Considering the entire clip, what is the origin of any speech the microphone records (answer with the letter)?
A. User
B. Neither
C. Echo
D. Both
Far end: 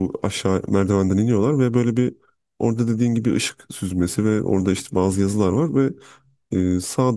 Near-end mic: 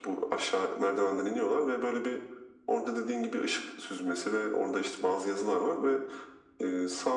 C